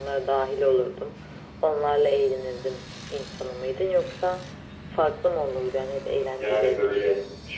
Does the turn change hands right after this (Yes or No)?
Yes